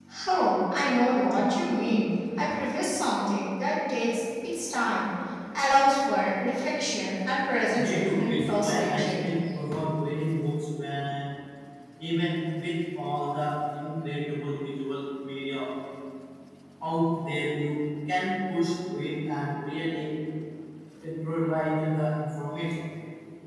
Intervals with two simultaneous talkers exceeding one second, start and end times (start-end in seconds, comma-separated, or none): 7.8-9.2